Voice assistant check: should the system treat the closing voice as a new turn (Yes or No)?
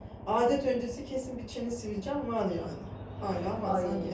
No